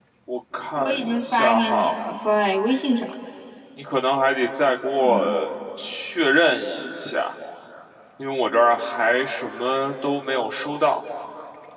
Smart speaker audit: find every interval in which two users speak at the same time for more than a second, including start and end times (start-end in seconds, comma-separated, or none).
0.8-2.0